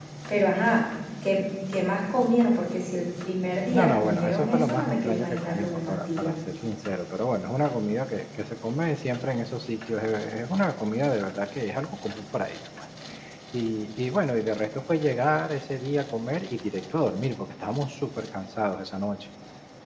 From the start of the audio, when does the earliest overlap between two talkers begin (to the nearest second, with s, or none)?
4 s